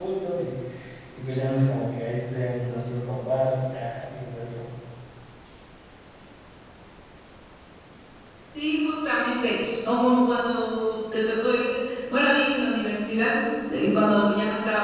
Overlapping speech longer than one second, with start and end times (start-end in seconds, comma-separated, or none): none